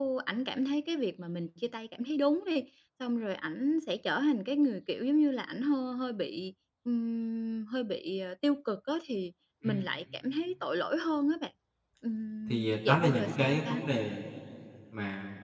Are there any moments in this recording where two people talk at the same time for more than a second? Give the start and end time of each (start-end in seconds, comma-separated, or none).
12.5-13.8